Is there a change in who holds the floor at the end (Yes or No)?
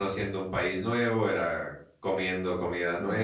No